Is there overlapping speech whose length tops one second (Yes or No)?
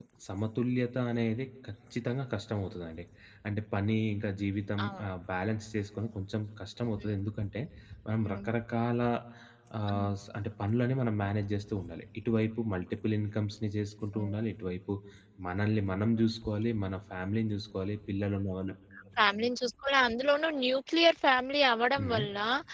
No